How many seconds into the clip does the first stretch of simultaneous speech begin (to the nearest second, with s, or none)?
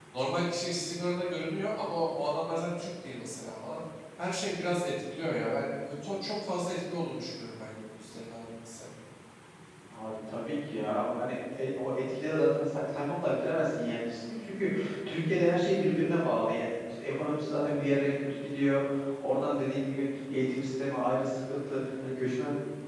none